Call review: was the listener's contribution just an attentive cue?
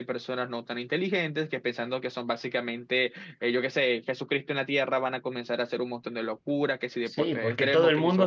No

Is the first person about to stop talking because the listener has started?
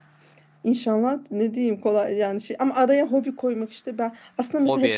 No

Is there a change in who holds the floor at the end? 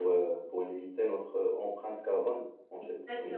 No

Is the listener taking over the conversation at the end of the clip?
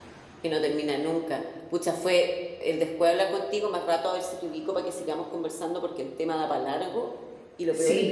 No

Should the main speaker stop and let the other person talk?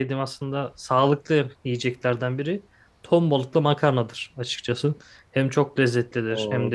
Yes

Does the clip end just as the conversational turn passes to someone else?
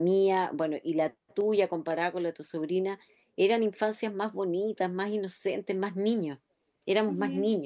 Yes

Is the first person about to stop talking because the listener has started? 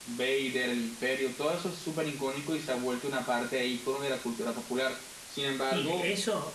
Yes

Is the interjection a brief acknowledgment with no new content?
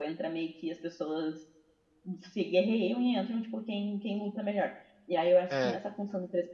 Yes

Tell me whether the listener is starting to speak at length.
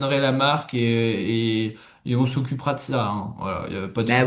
Yes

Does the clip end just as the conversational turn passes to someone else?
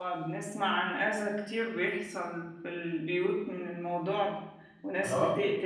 No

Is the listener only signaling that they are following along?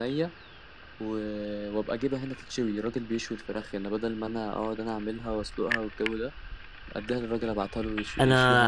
No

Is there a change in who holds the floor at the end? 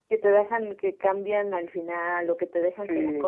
Yes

